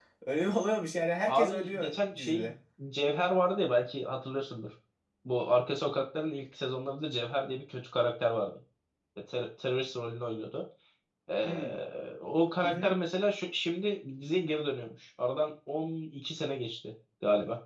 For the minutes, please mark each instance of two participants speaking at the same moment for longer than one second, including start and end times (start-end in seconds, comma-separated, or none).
1.3-2.5